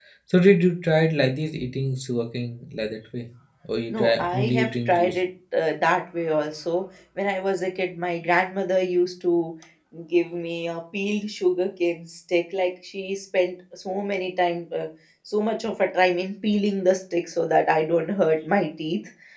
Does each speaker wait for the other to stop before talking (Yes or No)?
No